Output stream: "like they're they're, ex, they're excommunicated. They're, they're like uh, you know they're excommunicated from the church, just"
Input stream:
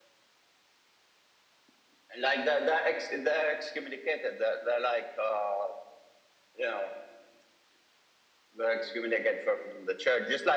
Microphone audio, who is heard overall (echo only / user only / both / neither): echo only